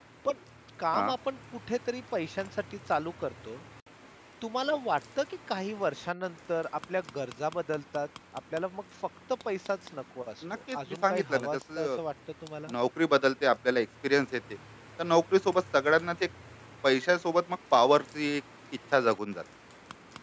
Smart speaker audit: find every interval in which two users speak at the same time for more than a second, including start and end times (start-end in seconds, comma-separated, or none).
10.5-12.0